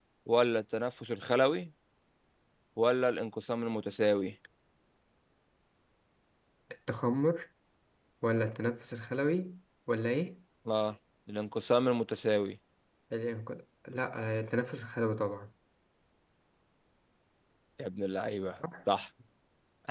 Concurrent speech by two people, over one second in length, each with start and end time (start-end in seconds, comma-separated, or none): none